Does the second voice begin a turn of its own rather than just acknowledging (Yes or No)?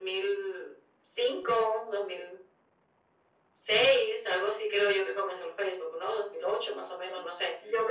Yes